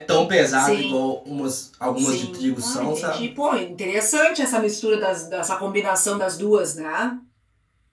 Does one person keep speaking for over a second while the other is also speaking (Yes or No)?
Yes